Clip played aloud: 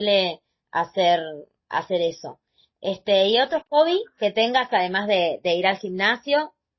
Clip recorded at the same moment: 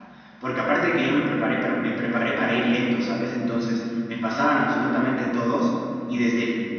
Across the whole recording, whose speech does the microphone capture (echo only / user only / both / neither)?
user only